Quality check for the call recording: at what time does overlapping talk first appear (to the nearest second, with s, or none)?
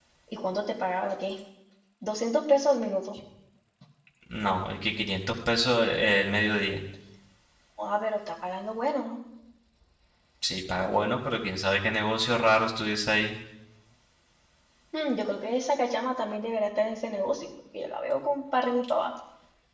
none